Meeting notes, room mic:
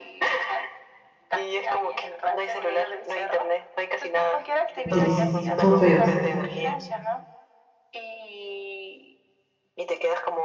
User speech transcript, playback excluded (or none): delici- Son feos.